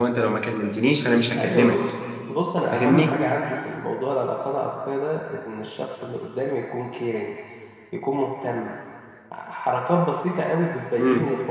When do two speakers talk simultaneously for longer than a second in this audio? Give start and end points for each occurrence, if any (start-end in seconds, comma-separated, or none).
none